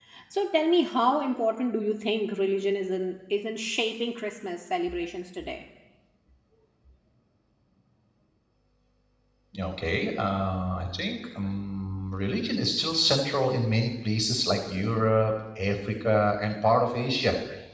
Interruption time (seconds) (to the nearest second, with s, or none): none